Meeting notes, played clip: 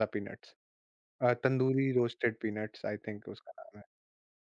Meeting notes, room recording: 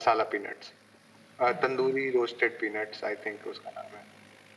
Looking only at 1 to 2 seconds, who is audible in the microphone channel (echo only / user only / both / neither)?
both